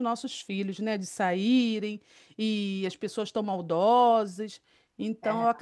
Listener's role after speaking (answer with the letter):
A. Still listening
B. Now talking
A